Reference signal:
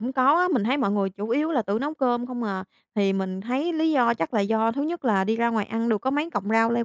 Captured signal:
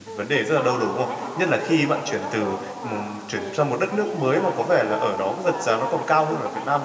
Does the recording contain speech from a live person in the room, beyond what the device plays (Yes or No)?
Yes